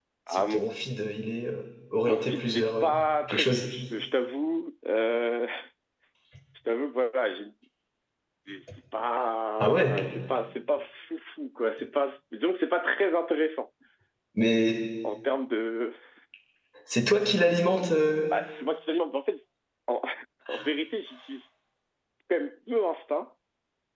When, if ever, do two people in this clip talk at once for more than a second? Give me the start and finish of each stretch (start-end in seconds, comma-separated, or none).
2.1-3.7